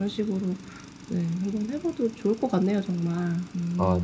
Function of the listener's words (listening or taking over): taking over